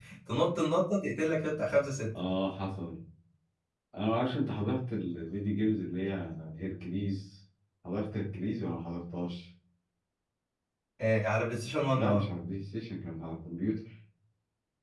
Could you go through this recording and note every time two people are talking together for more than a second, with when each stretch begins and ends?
none

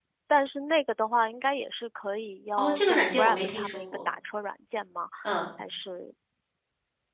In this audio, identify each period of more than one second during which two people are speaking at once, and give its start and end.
2.6-4.0

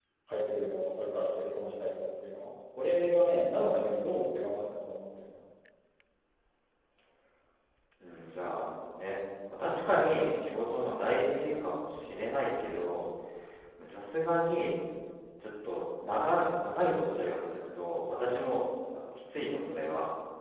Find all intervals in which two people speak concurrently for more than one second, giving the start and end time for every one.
none

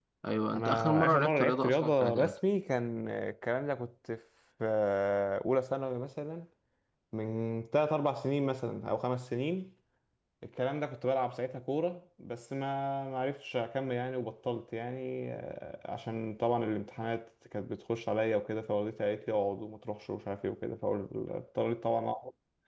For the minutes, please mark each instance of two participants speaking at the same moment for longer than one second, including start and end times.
0.5-2.4

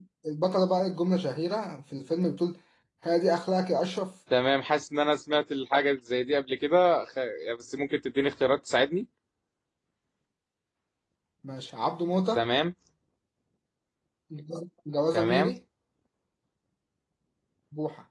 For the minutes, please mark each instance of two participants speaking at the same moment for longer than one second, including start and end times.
none

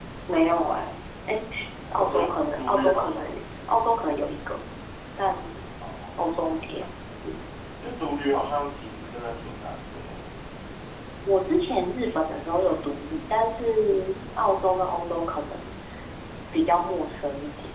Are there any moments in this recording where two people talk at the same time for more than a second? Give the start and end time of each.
1.9-3.2

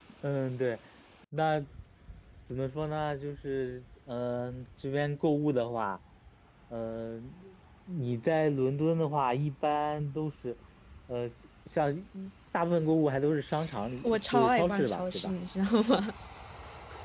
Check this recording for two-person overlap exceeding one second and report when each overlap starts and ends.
14.0-15.3

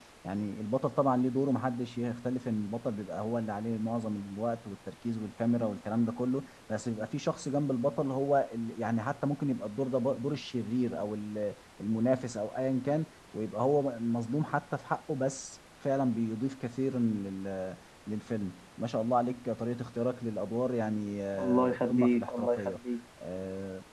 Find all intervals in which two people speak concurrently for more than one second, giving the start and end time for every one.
21.4-22.7

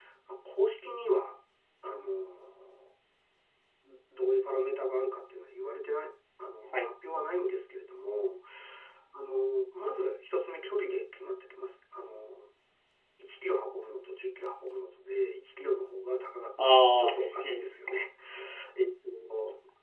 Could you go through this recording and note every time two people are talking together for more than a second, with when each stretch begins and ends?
16.6-17.8

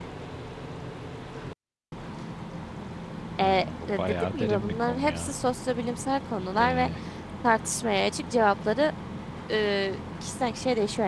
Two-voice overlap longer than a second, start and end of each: 3.9-5.3

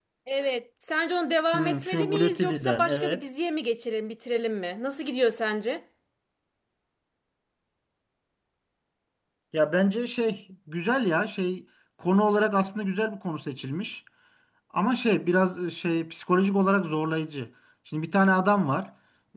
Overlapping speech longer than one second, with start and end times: 1.5-3.2

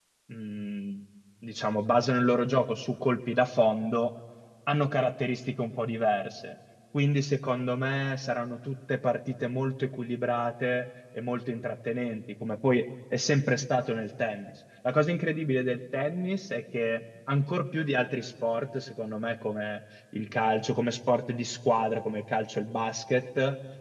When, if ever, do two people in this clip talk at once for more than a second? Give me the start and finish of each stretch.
none

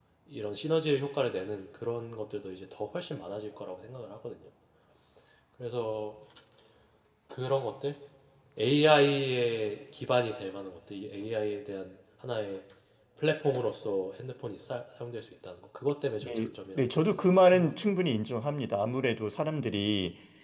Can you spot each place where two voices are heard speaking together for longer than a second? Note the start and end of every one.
16.2-17.7

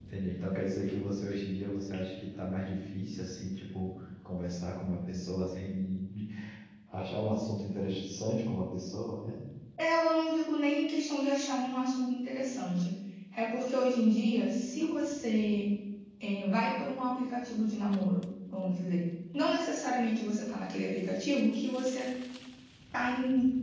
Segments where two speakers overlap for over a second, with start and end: none

